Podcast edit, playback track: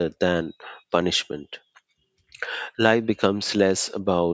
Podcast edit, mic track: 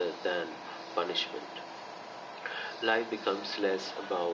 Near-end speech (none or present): none